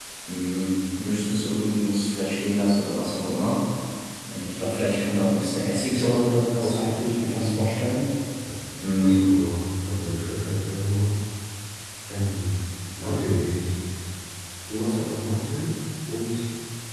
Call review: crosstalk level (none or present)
present